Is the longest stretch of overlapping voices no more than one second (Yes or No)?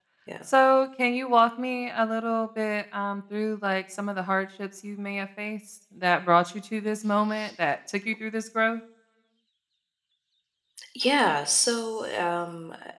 Yes